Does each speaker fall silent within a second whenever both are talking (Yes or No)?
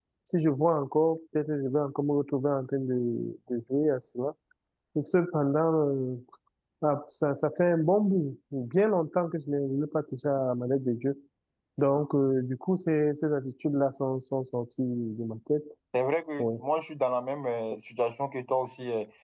Yes